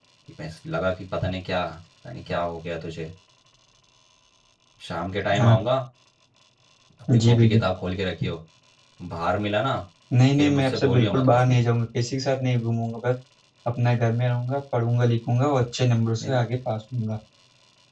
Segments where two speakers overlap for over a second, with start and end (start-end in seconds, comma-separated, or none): 10.4-11.6